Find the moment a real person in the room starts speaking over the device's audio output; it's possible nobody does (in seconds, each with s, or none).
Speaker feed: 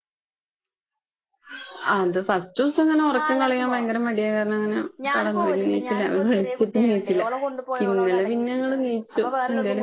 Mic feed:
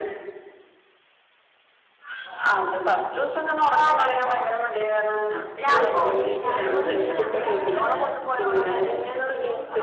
5.6 s